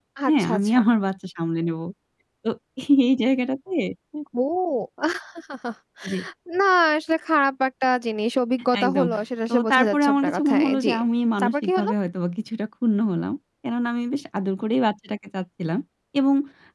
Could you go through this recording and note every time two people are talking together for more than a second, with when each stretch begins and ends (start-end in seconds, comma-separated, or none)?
9.5-10.9